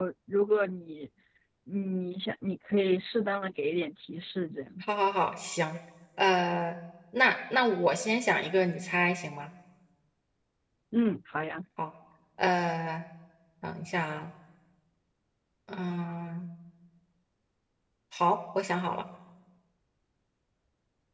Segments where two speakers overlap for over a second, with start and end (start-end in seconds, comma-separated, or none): none